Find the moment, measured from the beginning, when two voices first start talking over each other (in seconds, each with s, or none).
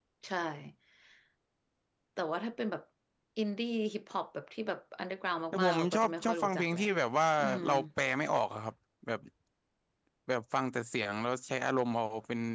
5.5 s